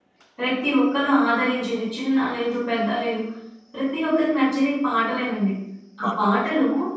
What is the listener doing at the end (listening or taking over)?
listening